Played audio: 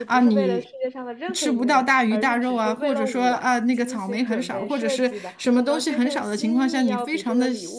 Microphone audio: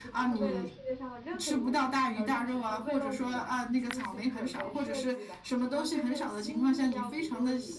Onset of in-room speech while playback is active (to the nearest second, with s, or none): none